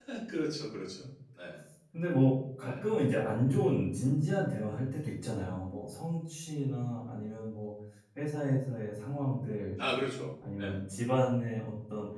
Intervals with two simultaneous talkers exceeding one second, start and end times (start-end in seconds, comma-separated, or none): none